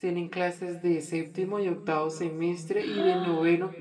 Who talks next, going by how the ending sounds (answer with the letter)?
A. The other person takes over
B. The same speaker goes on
B